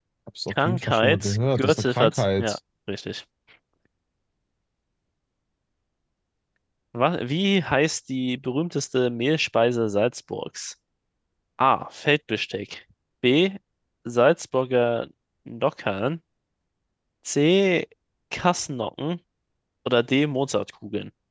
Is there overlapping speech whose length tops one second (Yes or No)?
Yes